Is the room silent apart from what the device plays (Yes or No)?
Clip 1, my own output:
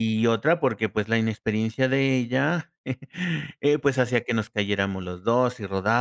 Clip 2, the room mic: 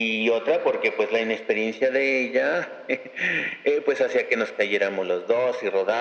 Yes